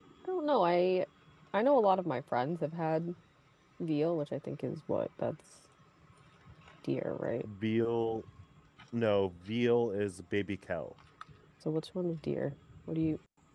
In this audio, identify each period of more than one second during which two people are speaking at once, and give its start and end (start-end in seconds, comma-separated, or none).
none